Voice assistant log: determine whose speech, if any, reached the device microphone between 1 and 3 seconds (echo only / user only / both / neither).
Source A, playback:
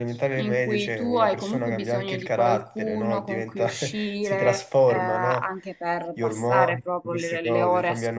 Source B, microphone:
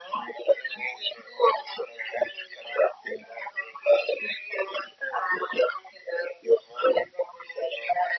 echo only